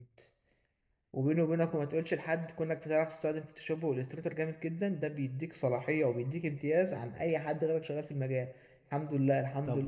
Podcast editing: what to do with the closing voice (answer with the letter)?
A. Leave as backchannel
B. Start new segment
A